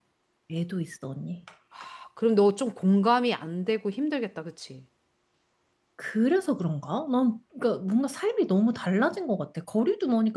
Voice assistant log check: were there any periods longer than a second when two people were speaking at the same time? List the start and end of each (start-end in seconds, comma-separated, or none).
none